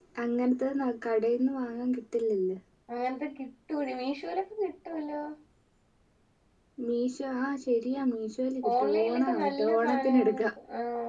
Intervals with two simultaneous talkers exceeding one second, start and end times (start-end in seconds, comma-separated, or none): 8.8-10.5